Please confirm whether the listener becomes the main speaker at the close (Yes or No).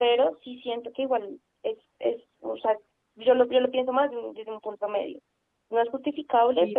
No